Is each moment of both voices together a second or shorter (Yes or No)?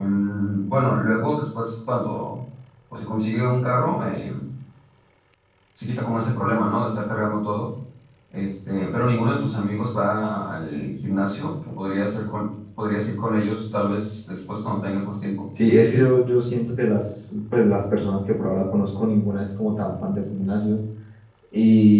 Yes